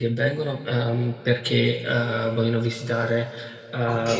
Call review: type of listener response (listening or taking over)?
listening